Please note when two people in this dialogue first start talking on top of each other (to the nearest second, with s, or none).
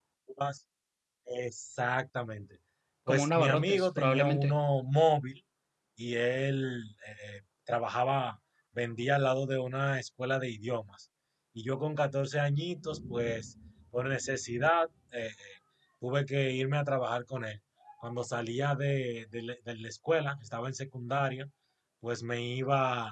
3 s